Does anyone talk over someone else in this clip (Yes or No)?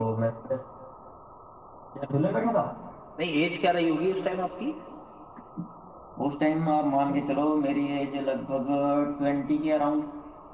No